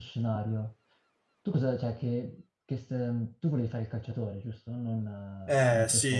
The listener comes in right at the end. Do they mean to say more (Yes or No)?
Yes